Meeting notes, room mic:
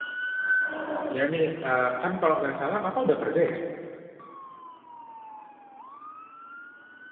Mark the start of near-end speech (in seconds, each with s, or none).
1.1 s